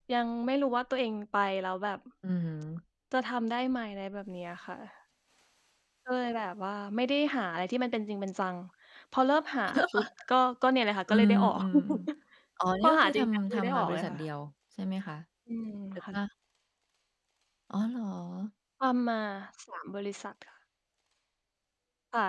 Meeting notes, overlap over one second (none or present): present